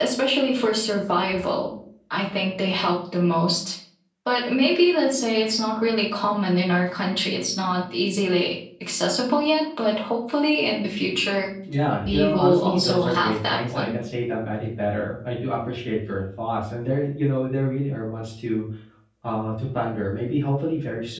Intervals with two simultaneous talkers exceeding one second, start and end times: 12.0-13.9

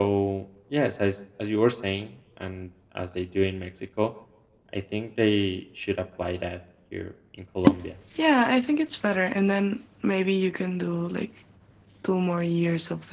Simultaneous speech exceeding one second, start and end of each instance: none

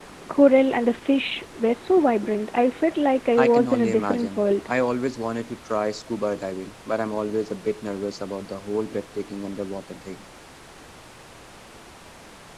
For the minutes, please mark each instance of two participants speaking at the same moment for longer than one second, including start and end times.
3.4-4.7

